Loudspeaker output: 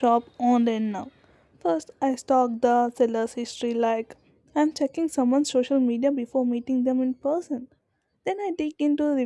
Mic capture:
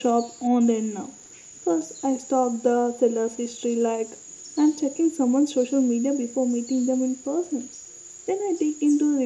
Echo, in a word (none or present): present